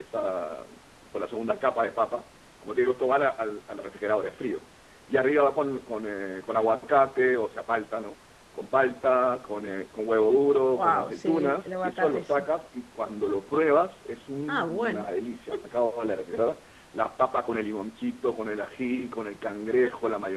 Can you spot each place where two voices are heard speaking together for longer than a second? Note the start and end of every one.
10.7-12.2

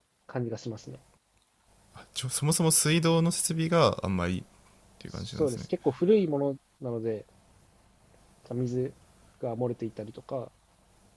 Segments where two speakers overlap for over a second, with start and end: none

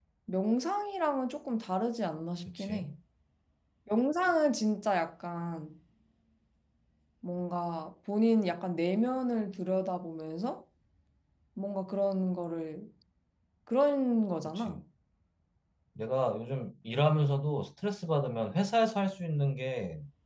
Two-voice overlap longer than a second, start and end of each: none

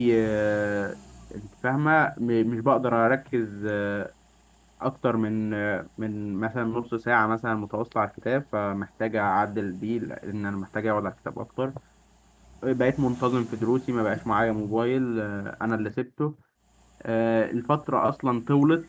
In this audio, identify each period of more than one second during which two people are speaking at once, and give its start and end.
none

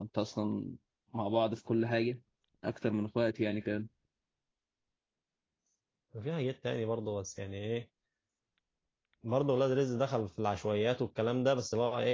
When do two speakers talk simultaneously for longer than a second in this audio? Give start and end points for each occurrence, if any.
none

